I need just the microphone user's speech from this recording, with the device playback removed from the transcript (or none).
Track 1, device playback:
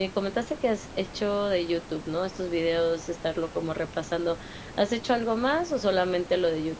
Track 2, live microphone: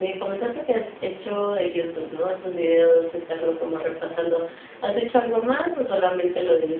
none